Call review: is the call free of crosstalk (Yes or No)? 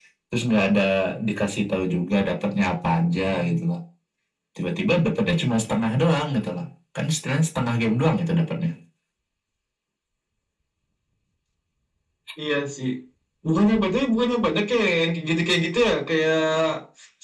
Yes